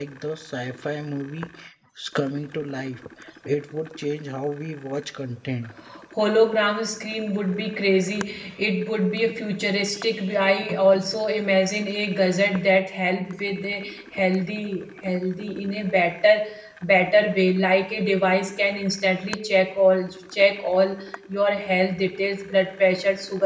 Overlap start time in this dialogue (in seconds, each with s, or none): none